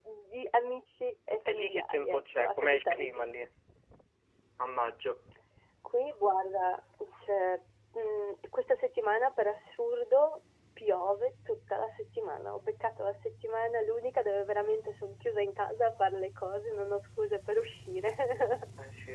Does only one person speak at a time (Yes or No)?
No